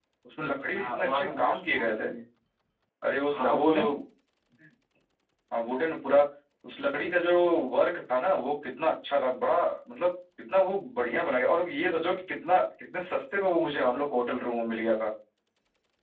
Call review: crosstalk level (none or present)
present